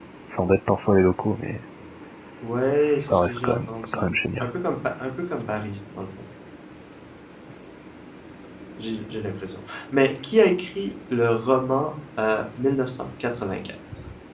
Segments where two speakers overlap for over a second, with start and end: 2.8-4.5

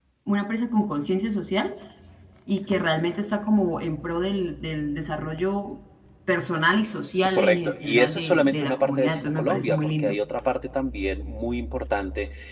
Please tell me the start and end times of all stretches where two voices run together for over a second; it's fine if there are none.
7.4-10.2

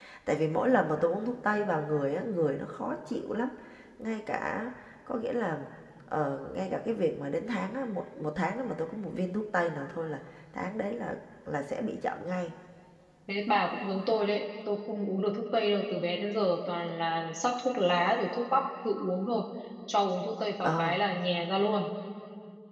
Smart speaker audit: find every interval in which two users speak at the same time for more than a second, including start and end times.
none

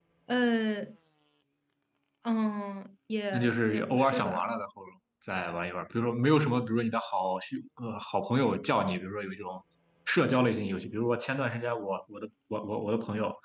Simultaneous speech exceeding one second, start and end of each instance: 3.3-4.5

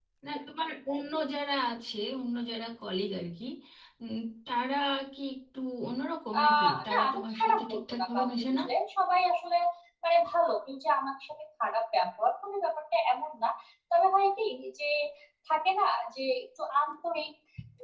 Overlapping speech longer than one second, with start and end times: 6.4-8.6

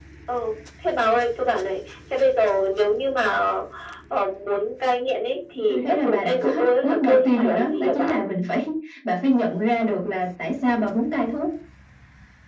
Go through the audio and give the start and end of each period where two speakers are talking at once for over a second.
5.7-8.2

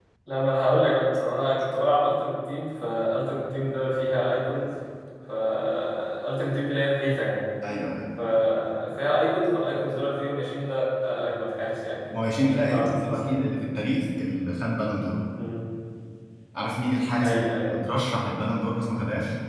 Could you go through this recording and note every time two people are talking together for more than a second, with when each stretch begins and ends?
12.1-13.5

